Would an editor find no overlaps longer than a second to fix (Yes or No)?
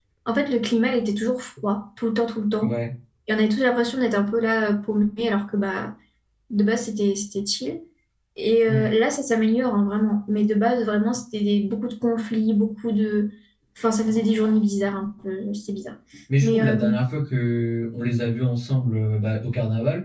Yes